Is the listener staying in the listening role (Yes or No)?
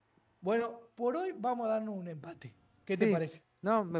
No